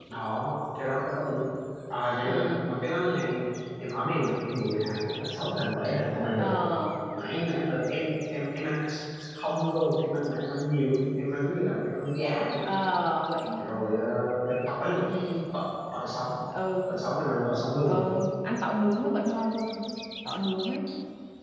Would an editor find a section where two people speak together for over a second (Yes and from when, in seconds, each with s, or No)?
No